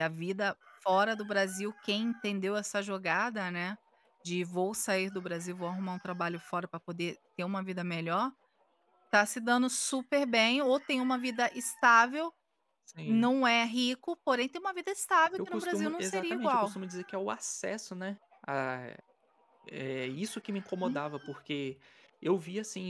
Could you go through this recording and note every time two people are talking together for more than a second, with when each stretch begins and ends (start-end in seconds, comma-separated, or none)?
15.5-16.8